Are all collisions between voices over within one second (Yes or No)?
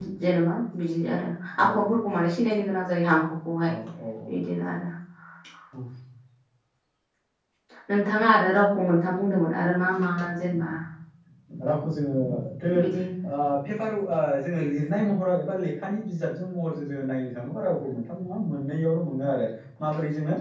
Yes